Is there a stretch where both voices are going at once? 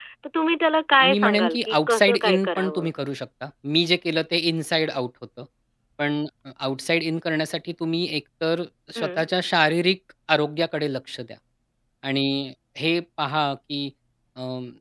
Yes, from 1.0 s

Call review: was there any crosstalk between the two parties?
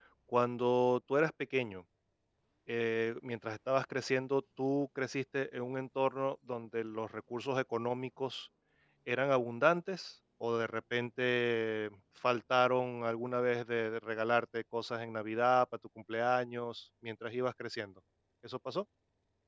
No

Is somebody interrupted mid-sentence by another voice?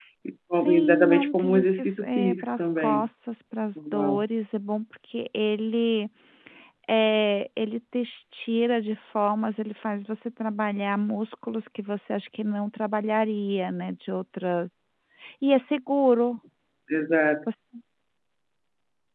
Yes, from 0.5 s

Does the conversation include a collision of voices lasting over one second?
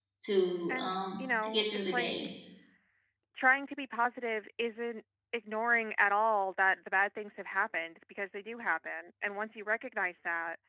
Yes, from 0.7 s

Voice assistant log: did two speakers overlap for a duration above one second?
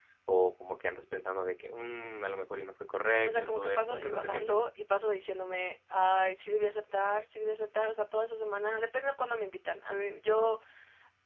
Yes, from 3.2 s

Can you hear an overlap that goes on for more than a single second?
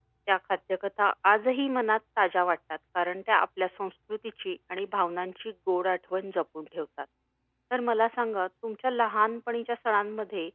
No

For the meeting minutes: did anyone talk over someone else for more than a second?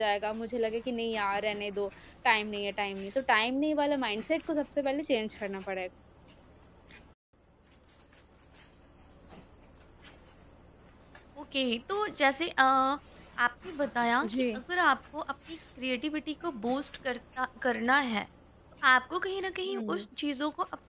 No

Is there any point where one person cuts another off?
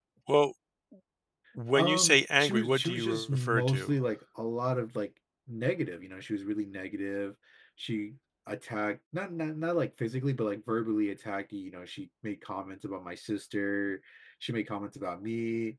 Yes, from 1.8 s

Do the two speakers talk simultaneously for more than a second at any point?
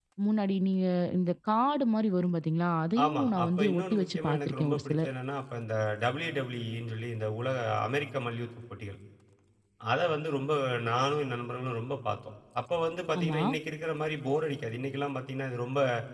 Yes, from 3.0 s

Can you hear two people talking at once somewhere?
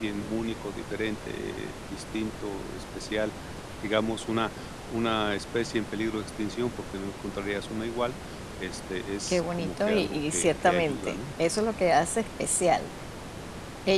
Yes, from 9.3 s

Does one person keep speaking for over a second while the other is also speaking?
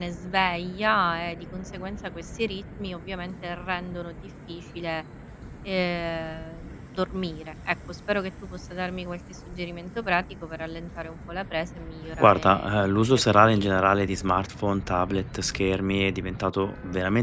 Yes, from 12.2 s

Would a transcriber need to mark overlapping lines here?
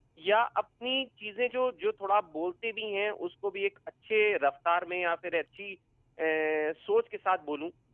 No

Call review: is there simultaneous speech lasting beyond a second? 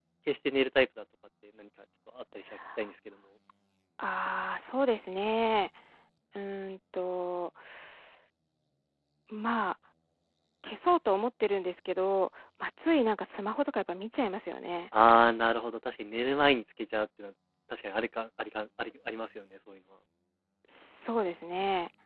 No

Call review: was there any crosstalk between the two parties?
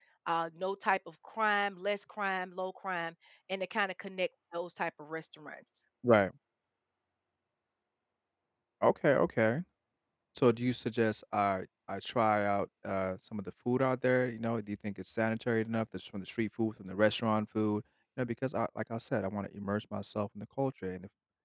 No

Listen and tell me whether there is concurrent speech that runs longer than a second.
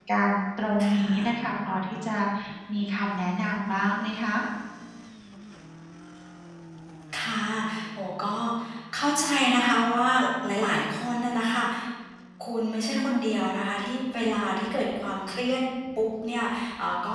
No

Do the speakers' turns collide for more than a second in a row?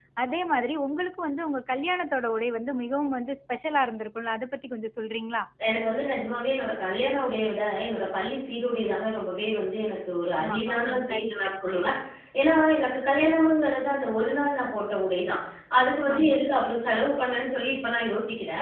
Yes, from 10.4 s

